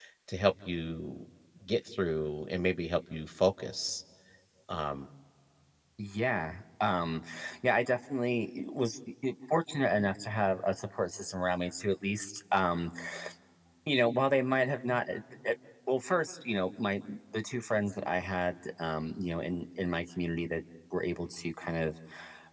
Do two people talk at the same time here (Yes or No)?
No